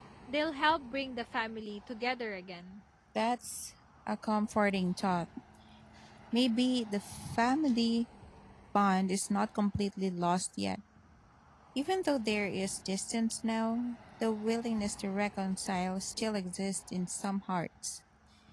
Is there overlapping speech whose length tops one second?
No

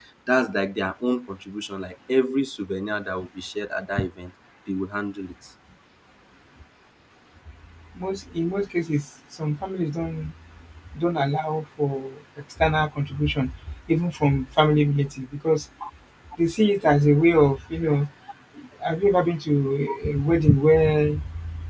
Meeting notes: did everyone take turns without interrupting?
Yes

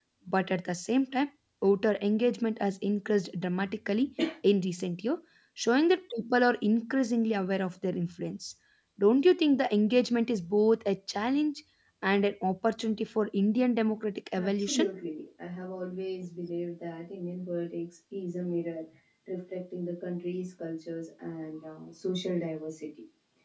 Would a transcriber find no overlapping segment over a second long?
Yes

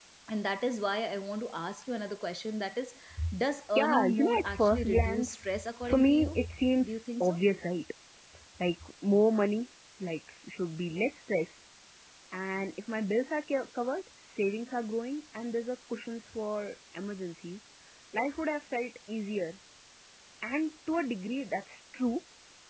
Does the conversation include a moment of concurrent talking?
Yes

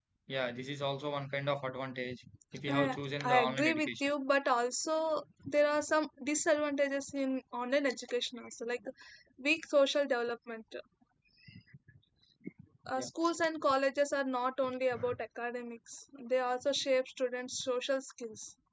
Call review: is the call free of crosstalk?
No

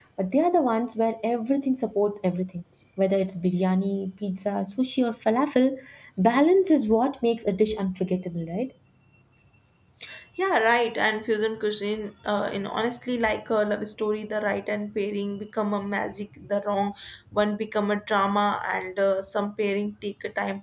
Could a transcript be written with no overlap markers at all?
Yes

